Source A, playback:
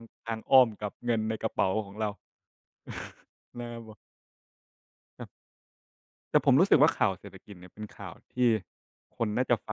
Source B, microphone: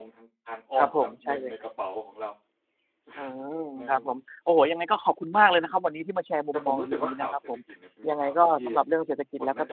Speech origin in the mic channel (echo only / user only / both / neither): both